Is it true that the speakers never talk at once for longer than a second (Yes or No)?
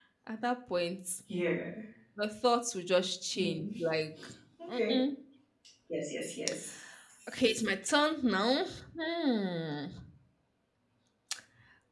Yes